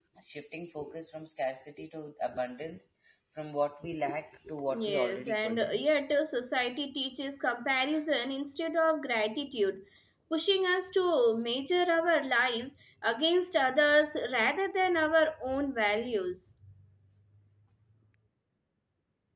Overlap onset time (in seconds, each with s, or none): 4.7 s